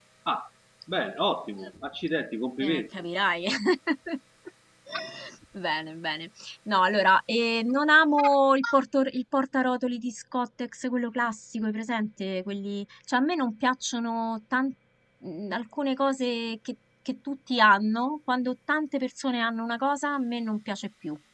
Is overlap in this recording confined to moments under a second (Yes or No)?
Yes